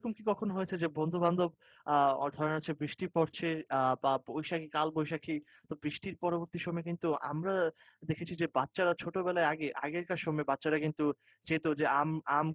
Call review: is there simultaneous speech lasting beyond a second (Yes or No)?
No